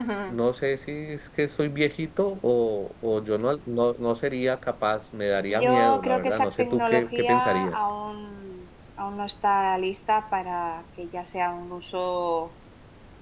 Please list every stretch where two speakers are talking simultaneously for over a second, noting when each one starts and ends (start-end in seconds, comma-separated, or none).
5.5-7.8